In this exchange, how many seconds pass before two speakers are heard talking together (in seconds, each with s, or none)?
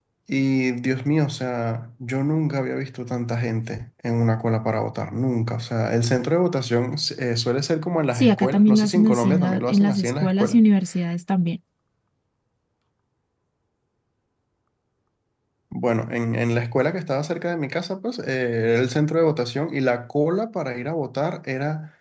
8.2 s